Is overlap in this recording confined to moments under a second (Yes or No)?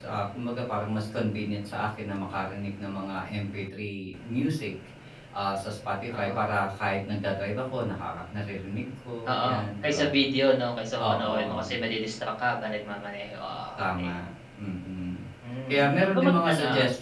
No